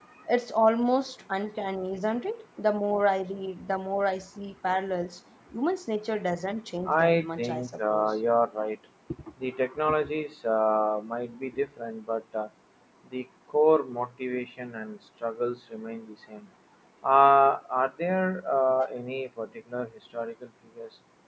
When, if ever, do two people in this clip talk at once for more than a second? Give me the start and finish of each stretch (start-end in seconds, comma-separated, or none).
6.9-8.2